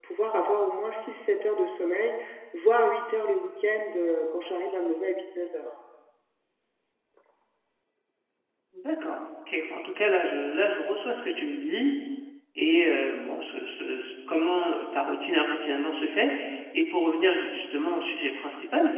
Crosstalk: none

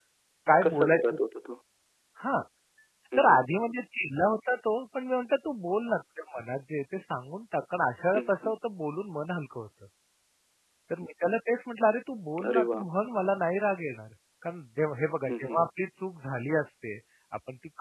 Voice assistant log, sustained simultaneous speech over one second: none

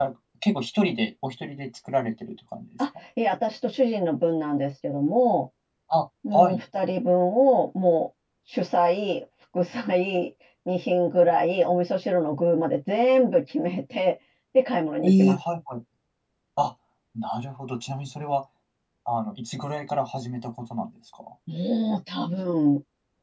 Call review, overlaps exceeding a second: none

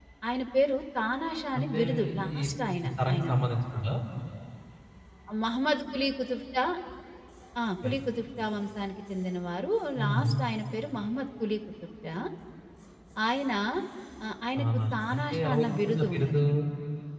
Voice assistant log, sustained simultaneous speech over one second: present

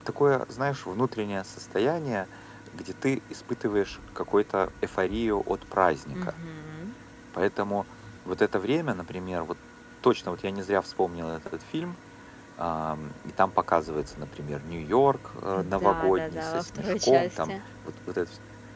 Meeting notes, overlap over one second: present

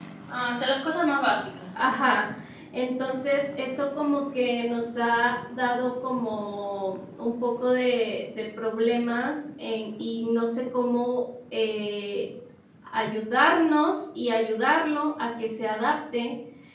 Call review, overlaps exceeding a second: none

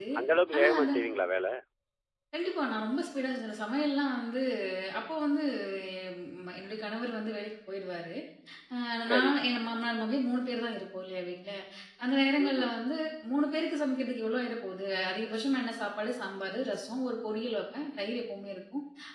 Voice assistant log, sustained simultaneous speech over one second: none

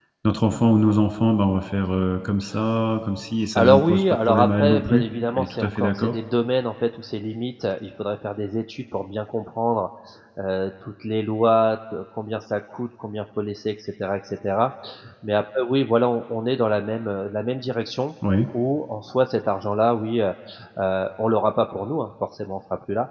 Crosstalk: present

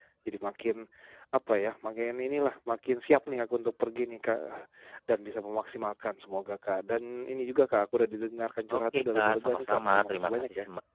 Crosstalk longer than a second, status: present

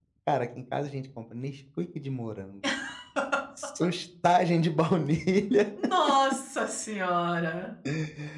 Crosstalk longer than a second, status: none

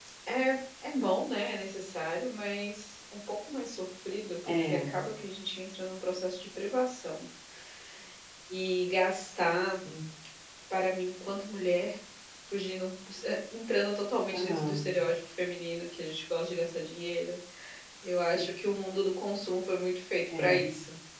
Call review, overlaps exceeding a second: none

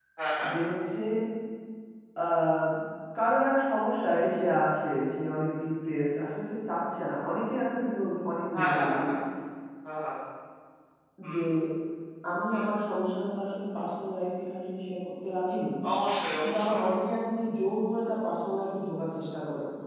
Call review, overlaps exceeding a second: none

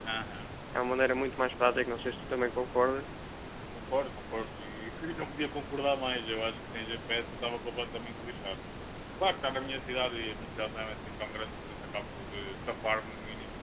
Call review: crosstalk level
none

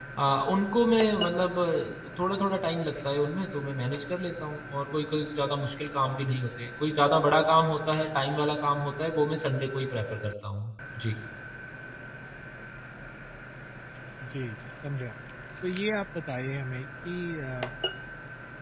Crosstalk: none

